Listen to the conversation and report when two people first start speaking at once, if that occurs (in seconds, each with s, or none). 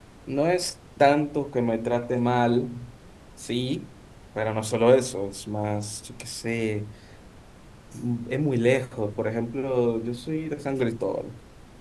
none